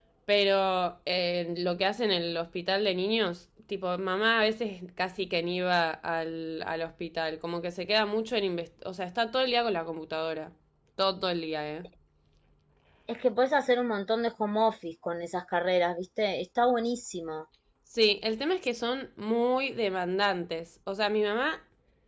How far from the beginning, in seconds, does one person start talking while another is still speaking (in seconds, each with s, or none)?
none